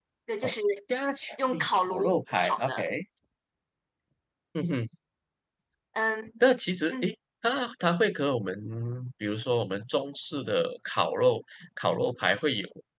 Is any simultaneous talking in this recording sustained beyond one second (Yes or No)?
Yes